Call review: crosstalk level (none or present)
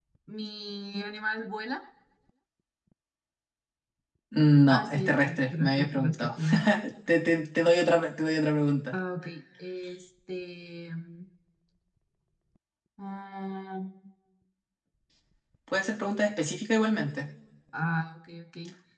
present